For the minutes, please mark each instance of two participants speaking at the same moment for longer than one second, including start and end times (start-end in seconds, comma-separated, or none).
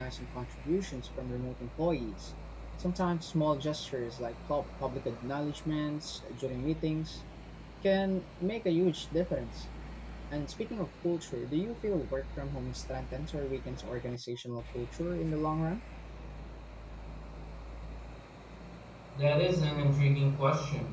none